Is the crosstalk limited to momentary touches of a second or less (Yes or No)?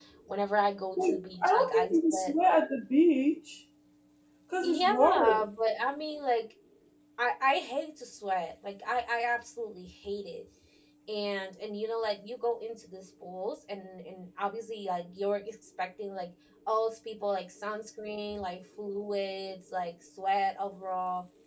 No